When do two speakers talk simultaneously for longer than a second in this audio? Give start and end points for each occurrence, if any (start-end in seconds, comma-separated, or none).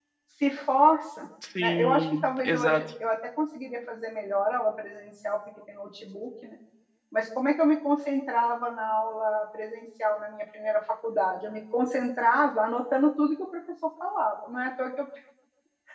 1.6-2.8